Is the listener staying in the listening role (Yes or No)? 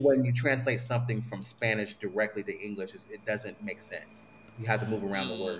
No